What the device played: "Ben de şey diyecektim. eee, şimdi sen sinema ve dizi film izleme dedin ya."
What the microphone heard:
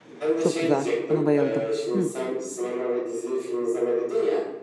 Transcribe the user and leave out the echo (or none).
Çok güzel. Buna bayıldım. Hı.